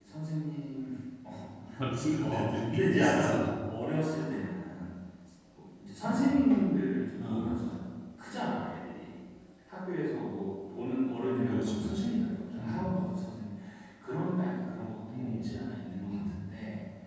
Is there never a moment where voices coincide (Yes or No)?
No